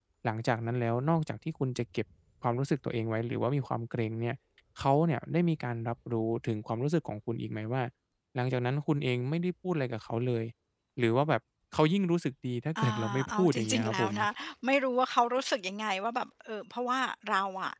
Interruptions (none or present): present